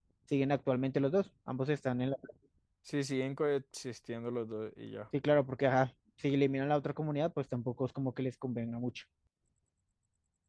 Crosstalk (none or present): none